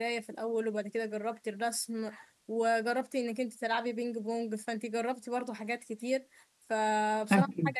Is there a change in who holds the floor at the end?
No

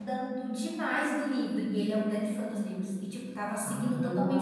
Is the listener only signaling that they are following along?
No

